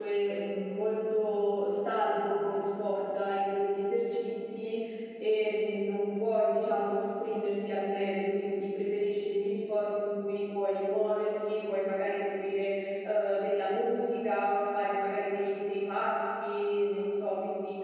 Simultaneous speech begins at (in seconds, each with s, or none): none